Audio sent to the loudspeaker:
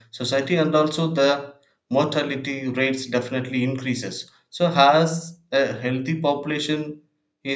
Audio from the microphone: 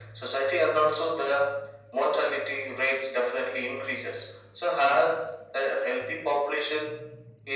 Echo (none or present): present